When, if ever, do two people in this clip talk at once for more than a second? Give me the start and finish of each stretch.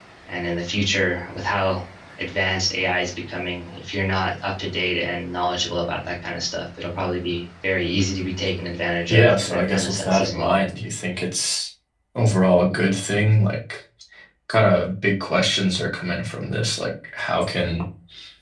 9.1-10.6

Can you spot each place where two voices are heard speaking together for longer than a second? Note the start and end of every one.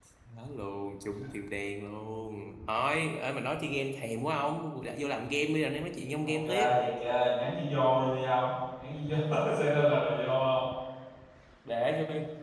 none

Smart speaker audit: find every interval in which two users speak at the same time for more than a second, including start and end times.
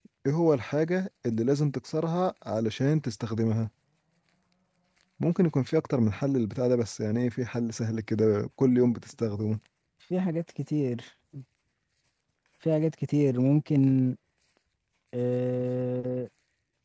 none

